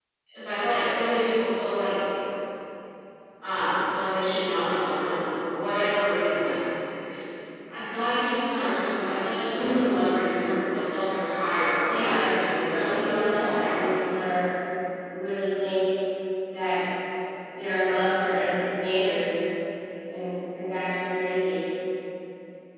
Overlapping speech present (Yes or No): Yes